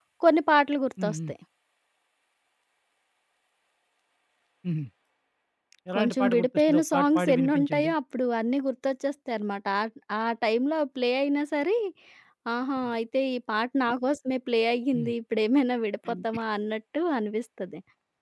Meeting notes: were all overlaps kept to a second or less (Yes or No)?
No